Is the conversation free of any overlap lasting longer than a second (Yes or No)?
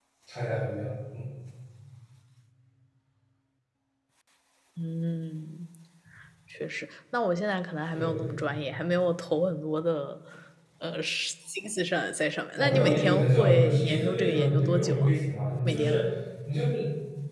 No